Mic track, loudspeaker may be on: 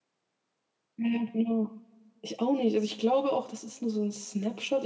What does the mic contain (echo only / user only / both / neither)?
user only